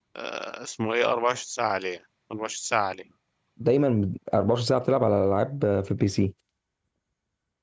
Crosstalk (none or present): none